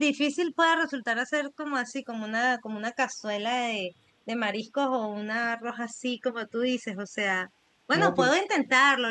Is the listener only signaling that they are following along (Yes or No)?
Yes